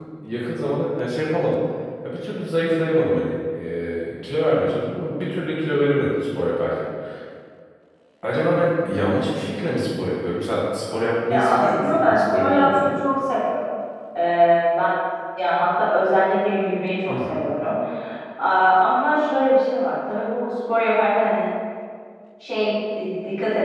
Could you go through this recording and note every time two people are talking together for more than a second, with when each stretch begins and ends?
11.3-12.9

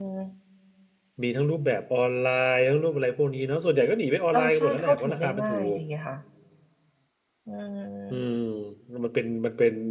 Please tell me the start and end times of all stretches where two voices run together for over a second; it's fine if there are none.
4.3-5.8

